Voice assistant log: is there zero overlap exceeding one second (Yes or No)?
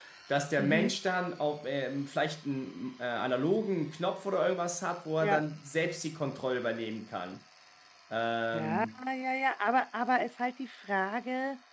Yes